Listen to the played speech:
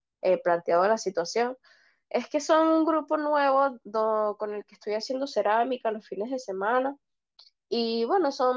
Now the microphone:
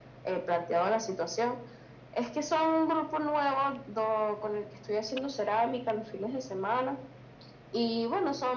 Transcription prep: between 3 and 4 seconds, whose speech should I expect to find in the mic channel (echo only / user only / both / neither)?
echo only